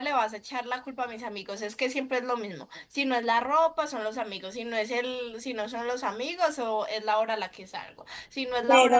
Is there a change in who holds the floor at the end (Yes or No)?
No